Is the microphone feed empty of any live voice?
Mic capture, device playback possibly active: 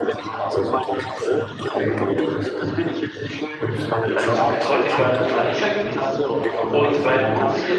No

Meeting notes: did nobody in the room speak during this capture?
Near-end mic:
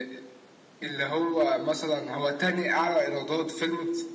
Yes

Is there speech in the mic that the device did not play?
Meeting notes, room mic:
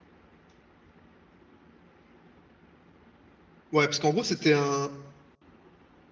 Yes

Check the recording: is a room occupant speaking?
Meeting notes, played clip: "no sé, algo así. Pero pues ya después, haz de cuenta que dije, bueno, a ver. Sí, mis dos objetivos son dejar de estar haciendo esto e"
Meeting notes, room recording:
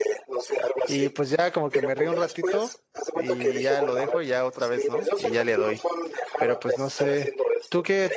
Yes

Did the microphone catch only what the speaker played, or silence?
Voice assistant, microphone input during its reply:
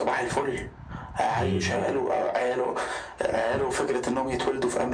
No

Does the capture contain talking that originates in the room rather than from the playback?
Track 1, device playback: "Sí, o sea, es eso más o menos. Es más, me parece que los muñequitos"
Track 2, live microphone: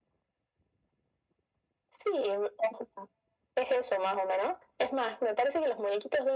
No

